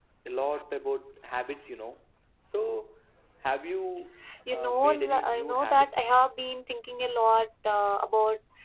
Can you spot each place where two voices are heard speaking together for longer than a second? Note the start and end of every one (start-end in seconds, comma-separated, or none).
4.5-5.9